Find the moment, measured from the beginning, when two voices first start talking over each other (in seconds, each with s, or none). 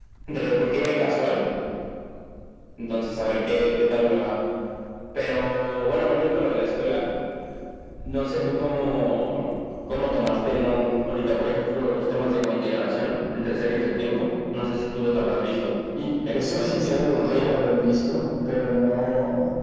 16.3 s